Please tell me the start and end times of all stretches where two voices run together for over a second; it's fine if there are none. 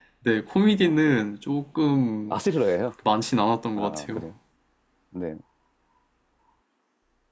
none

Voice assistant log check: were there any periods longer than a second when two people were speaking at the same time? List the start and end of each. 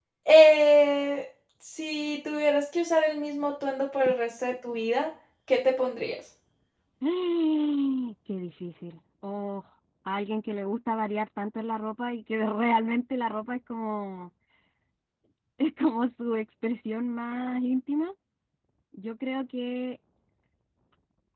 none

